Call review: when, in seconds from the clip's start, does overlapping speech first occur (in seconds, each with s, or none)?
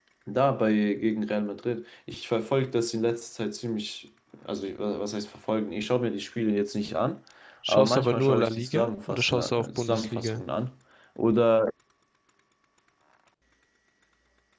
7.7 s